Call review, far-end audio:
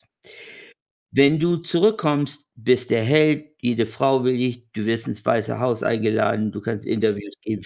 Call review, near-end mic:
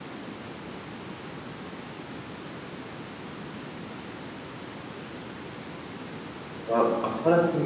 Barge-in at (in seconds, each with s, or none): 6.7 s